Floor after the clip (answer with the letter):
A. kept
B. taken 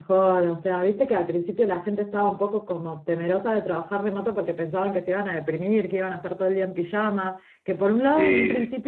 A